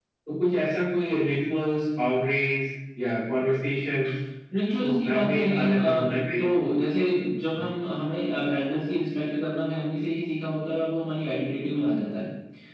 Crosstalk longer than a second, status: present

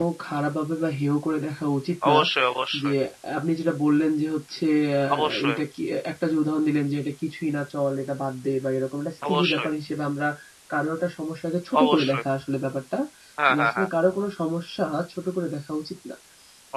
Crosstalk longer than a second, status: none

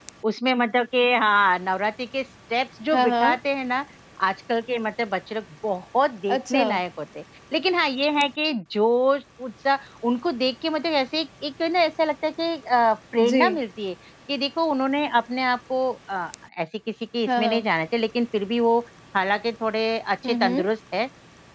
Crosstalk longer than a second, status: none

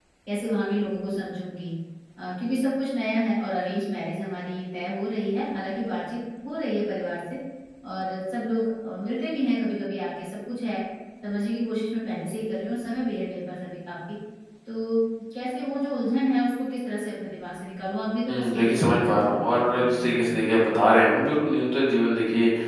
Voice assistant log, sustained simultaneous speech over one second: present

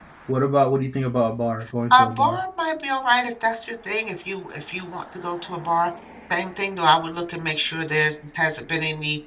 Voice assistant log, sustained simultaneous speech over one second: none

